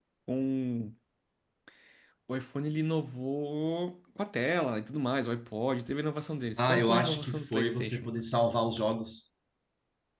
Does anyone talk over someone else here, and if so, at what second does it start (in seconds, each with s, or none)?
6.6 s